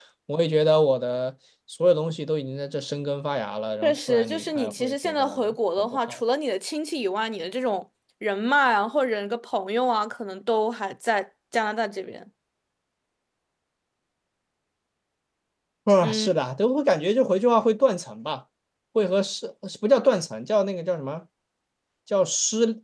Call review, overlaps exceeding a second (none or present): present